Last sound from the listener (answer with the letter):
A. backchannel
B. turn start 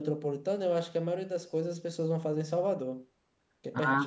B